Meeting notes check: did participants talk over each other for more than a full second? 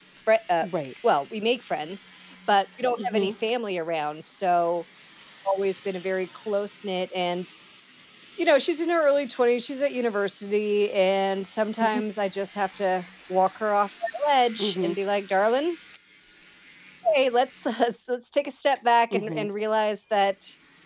No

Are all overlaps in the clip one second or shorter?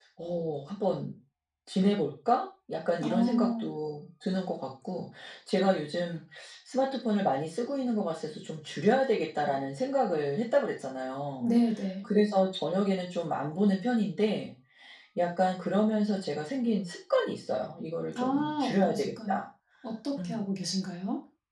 No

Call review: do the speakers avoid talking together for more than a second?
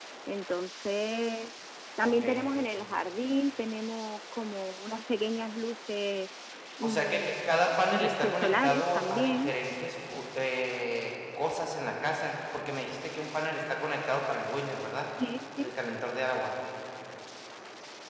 No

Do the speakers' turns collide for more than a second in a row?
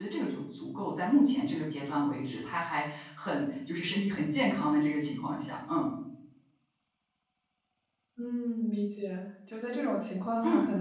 No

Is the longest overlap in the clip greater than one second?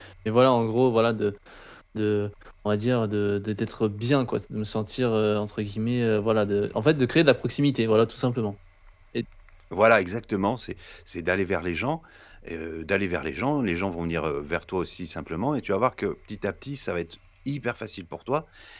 No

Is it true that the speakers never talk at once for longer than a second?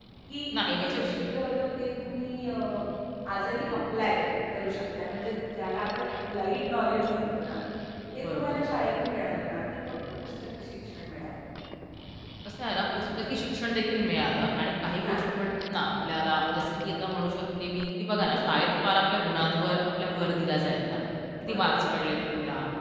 Yes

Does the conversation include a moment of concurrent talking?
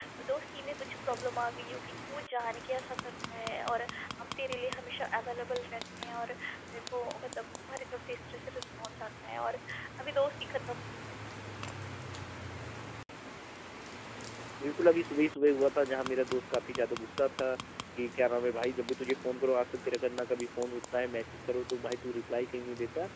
No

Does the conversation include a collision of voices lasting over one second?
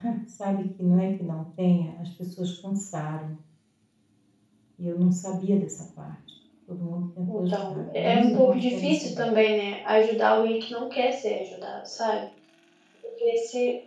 Yes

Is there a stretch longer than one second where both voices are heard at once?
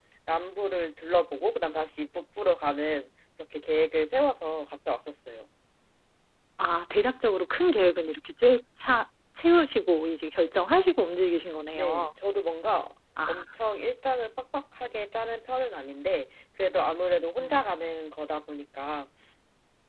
No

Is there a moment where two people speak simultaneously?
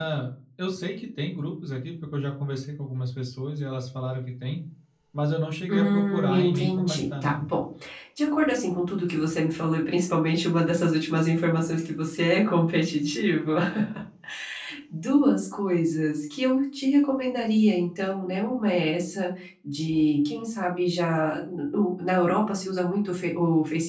Yes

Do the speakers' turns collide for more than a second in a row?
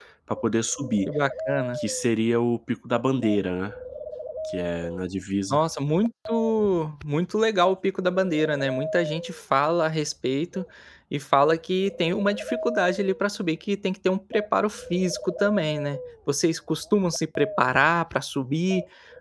No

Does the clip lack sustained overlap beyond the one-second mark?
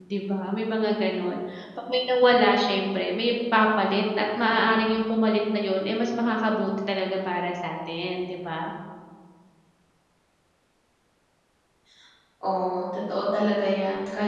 Yes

